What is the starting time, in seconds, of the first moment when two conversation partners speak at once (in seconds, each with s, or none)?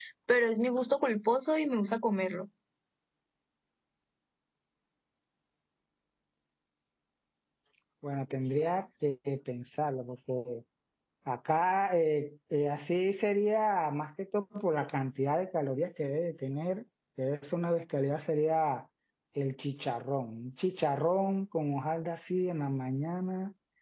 none